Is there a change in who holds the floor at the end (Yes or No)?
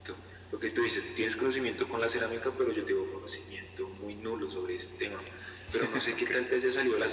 No